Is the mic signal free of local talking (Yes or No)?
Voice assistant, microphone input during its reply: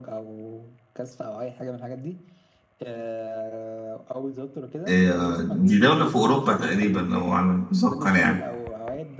No